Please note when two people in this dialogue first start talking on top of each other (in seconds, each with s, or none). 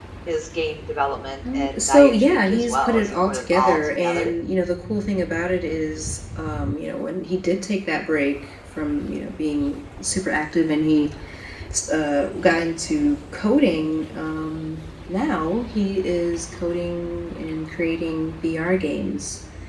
1.4 s